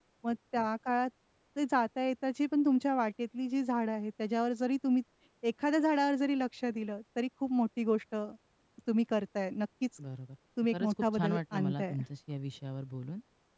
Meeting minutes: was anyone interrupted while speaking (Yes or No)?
Yes